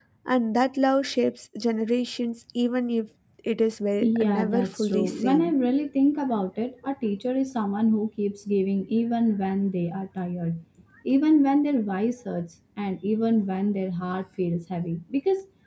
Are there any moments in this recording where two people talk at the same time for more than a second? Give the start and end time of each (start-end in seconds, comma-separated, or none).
4.0-5.5